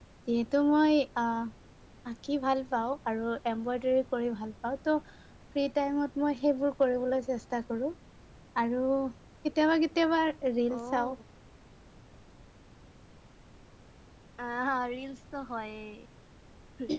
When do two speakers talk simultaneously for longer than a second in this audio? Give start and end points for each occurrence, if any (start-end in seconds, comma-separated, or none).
none